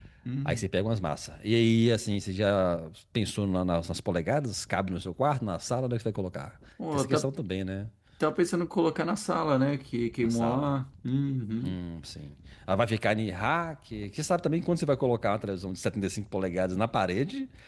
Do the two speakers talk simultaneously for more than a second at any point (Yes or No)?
No